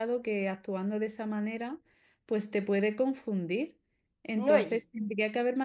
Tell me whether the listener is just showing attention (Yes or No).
Yes